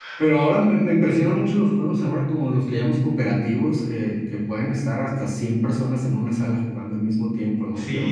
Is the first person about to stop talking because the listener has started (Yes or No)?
Yes